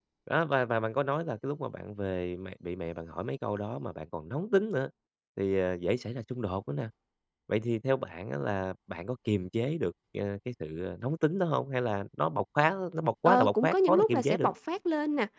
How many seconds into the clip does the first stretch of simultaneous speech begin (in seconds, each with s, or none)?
13.2 s